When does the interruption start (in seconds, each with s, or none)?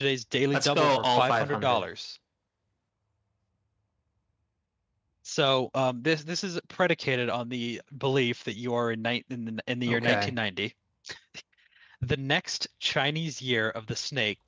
0.5 s